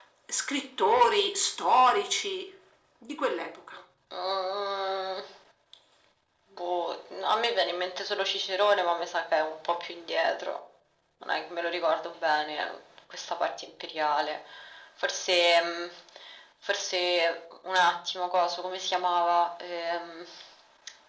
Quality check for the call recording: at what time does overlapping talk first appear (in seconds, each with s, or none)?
none